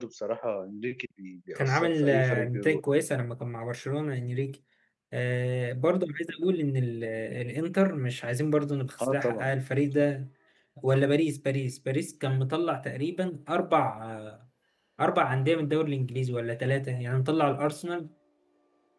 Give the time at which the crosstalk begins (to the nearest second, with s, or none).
2 s